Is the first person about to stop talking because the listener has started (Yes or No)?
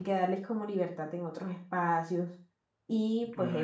Yes